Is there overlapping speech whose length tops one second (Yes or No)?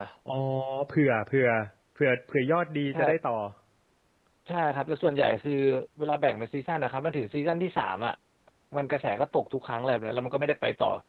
No